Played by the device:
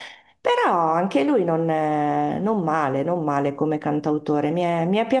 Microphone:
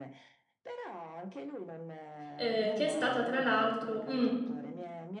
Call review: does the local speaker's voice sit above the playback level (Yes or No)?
Yes